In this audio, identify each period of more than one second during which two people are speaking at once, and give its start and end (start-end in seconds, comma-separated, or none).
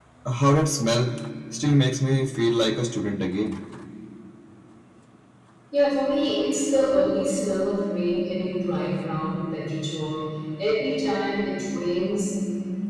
none